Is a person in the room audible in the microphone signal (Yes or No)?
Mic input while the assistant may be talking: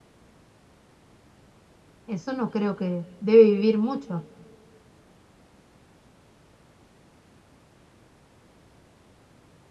Yes